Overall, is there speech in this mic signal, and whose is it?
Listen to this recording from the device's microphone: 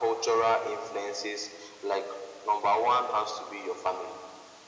echo only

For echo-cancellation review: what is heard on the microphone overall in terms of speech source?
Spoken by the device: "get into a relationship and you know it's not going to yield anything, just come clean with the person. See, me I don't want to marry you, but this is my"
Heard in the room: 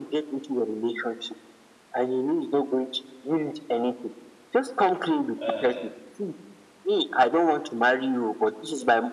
both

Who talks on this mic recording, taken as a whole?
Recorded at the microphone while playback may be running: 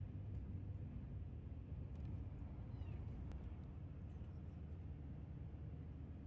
neither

